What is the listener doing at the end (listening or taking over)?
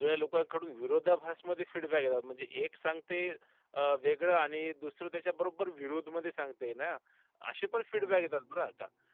listening